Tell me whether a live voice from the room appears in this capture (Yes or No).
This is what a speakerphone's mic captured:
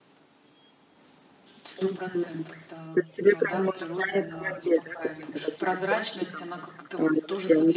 Yes